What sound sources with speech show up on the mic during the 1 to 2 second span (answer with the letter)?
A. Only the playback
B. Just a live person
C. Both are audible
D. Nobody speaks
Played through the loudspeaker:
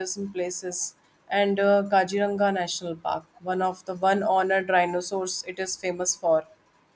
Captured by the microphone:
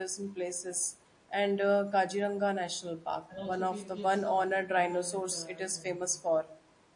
A